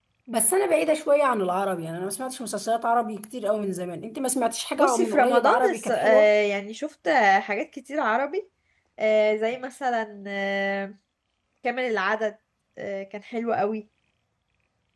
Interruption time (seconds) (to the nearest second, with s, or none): 5 s